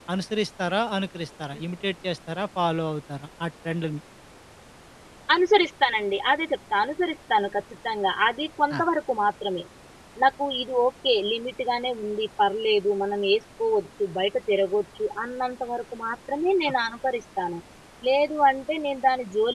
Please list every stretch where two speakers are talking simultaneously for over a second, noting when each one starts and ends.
none

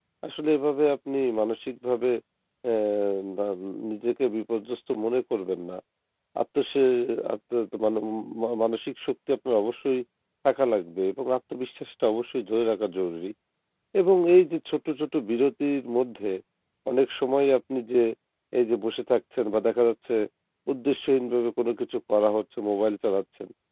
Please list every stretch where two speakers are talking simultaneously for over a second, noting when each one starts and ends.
none

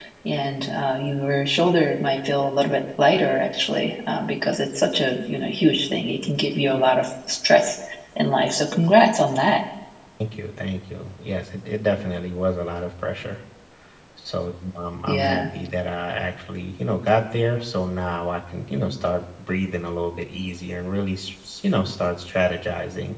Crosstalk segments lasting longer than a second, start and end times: none

